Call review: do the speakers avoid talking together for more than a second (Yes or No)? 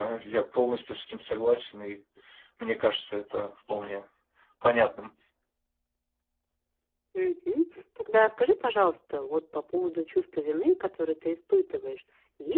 Yes